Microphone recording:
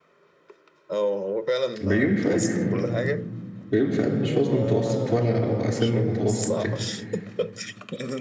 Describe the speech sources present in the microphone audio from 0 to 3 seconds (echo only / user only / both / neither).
both